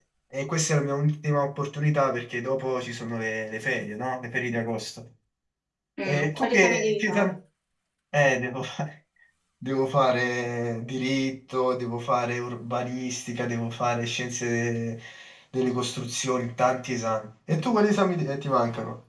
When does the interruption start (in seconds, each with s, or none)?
6.0 s